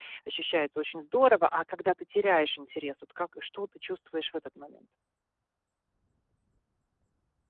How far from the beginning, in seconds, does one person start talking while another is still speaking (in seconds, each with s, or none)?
none